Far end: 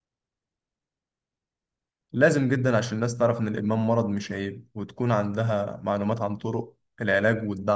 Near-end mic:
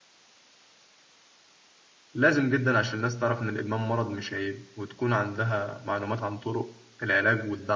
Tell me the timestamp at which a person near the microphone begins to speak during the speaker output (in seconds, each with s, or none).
none